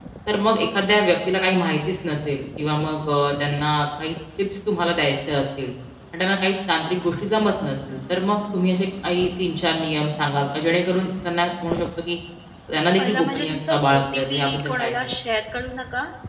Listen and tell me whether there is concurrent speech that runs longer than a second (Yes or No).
Yes